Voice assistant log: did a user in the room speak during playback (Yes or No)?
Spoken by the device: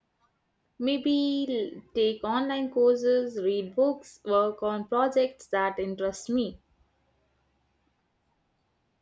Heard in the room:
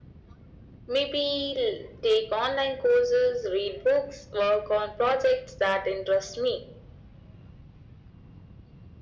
No